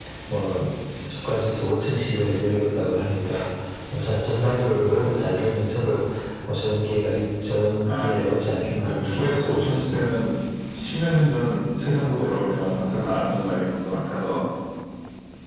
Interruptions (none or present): present